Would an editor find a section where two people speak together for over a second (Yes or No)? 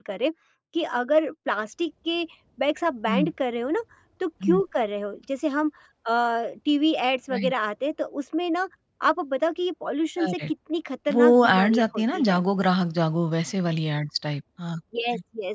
Yes